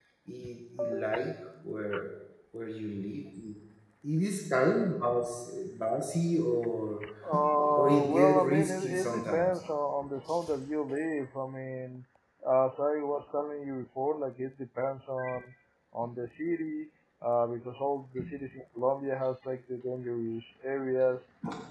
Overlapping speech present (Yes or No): Yes